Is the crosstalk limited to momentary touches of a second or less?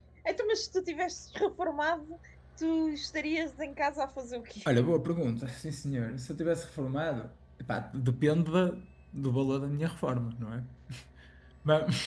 Yes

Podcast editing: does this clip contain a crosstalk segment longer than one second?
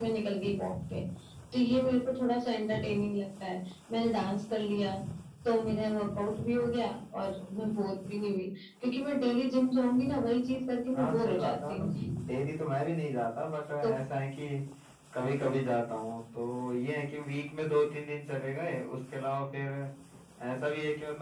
Yes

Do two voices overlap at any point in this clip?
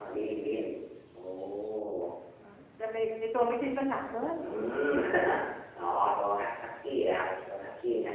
No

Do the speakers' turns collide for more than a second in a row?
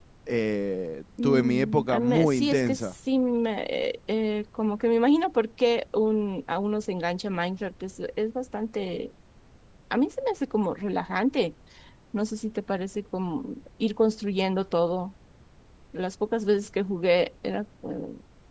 Yes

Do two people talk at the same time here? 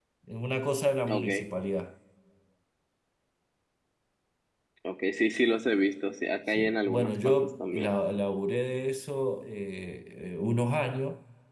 Yes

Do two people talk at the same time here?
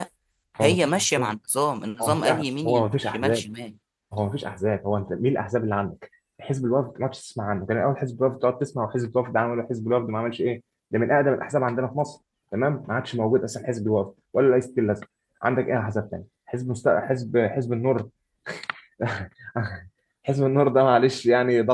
Yes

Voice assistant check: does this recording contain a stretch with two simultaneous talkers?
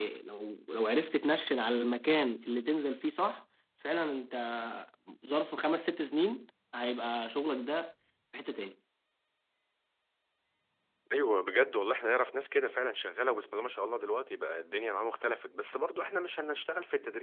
No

